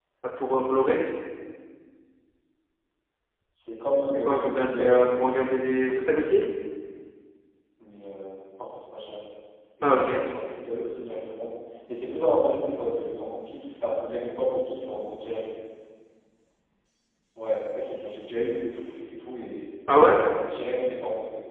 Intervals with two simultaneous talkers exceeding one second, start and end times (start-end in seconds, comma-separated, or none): 4.2-5.6